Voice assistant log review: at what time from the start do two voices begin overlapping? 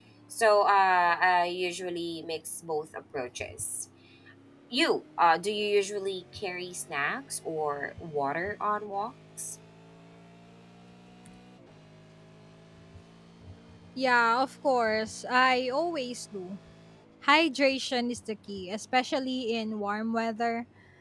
none

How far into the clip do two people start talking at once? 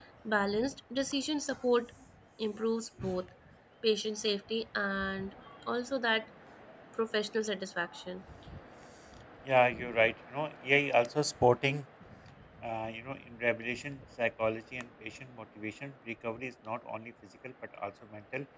none

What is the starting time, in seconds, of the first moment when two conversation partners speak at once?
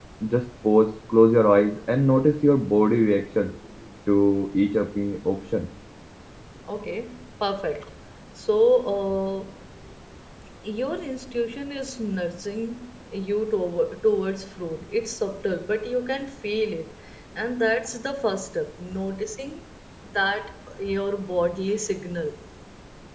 none

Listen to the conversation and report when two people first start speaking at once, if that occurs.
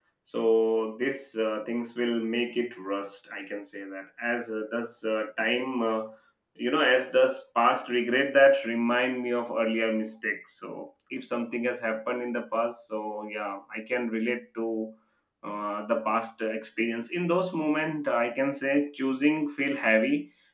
none

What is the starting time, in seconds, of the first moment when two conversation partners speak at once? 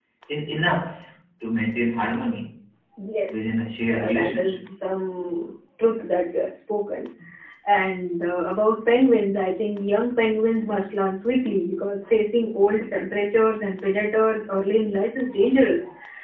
3.3 s

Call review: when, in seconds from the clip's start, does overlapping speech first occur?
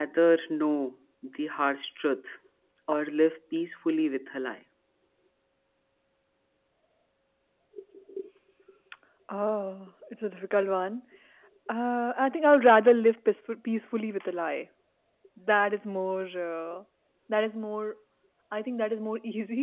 none

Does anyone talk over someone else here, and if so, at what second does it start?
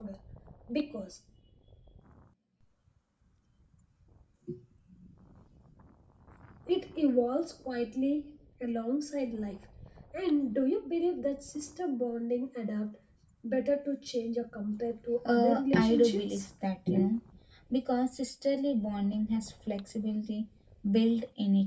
15.2 s

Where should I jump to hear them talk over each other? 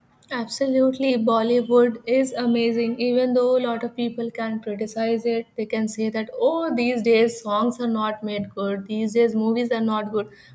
none

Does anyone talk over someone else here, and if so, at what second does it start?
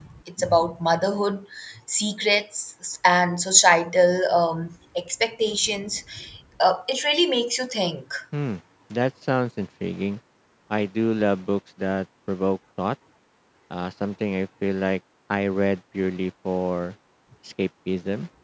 none

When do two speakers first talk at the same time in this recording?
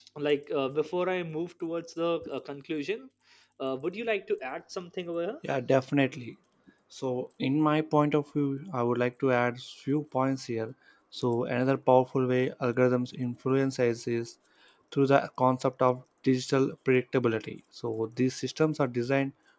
none

